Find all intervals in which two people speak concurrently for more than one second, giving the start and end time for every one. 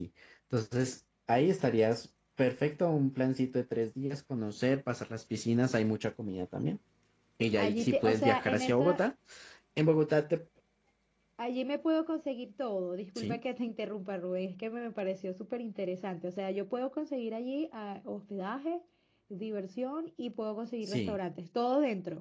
7.6-9.0

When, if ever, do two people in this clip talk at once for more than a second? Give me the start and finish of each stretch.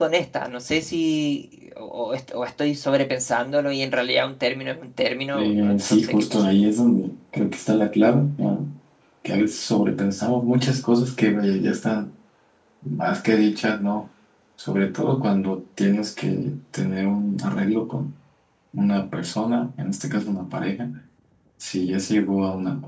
5.3-6.7

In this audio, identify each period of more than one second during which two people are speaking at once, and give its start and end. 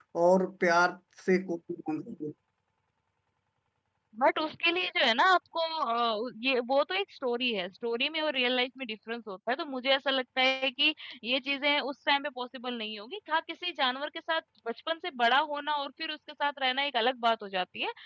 none

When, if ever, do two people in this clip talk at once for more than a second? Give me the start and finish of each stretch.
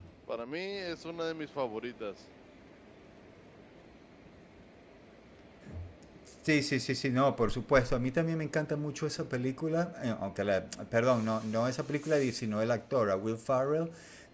none

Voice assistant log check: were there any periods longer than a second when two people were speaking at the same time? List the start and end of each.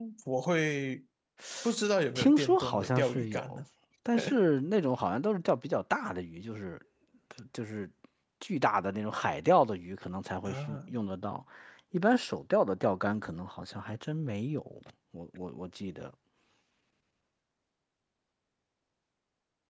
2.1-3.6

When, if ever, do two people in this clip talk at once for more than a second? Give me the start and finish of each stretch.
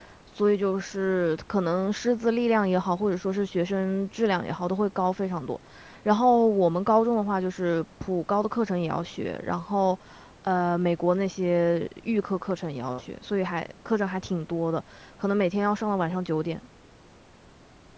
none

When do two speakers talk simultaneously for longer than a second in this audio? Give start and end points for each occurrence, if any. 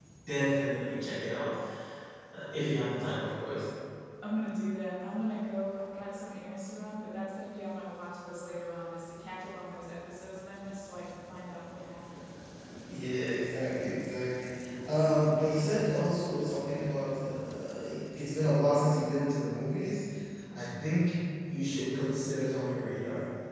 none

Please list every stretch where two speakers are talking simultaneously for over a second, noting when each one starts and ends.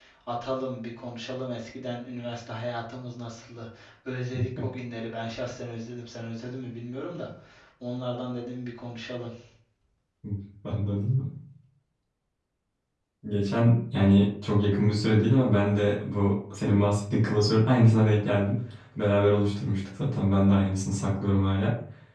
none

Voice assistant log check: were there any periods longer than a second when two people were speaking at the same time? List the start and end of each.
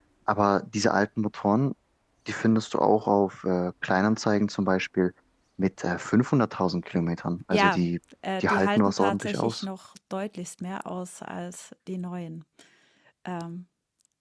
8.4-9.7

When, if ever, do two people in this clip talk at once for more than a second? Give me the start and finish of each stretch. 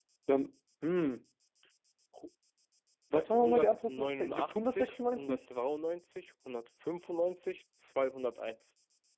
3.1-5.4

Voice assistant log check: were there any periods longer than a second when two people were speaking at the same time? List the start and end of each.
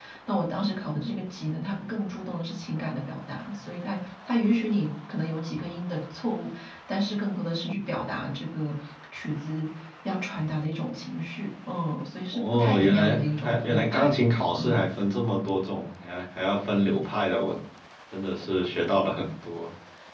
12.3-14.2

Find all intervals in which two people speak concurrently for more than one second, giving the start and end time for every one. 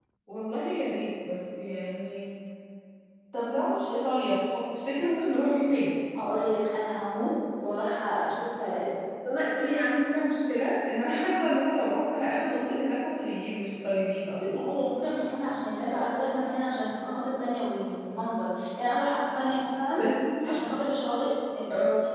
none

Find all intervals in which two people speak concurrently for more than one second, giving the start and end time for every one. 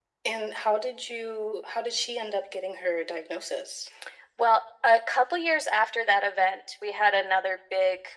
none

